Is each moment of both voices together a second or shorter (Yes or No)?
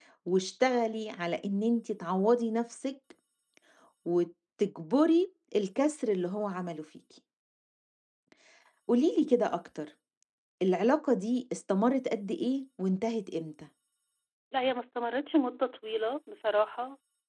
Yes